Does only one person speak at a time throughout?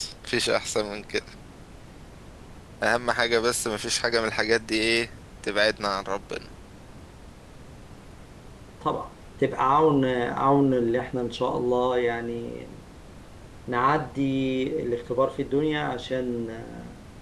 Yes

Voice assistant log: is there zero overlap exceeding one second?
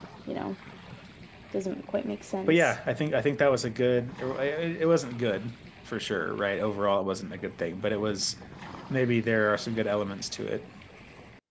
Yes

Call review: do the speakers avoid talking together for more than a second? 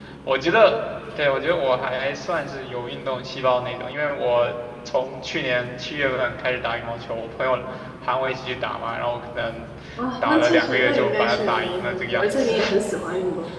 No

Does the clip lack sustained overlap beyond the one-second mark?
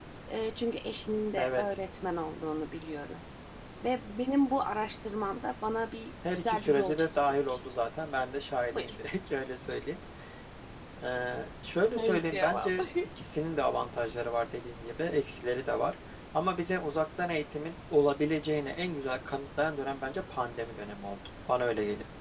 No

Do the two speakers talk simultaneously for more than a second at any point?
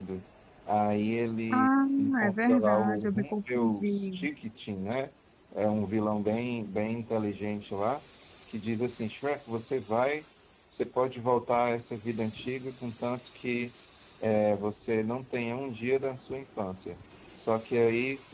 Yes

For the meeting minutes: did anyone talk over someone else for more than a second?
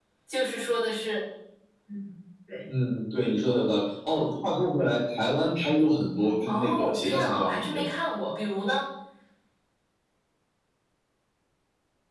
Yes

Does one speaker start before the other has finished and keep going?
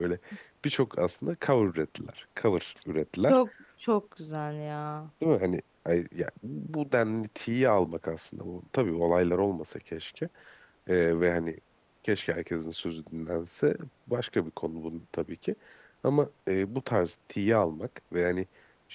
No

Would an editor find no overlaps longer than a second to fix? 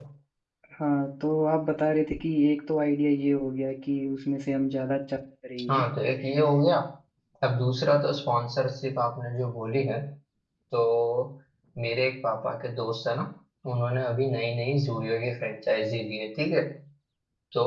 Yes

